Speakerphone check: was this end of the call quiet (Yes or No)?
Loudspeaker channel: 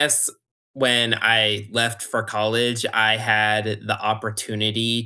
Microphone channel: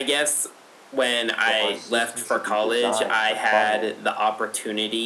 No